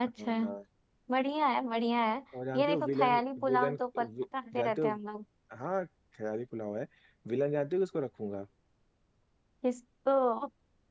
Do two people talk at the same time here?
Yes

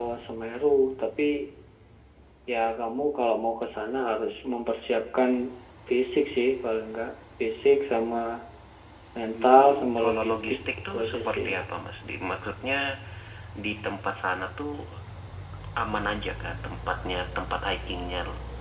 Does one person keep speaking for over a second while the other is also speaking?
Yes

